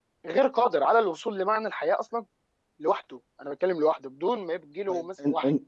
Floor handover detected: Yes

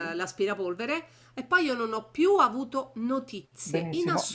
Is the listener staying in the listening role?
No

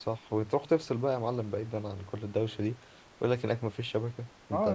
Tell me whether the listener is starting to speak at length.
Yes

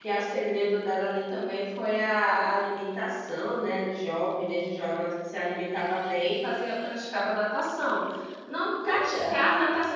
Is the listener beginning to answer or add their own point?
No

